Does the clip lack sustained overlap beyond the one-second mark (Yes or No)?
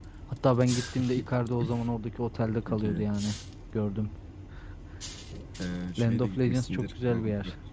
No